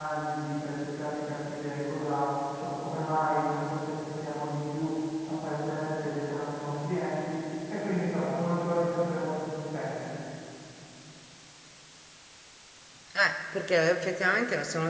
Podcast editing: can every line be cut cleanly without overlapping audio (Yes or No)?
Yes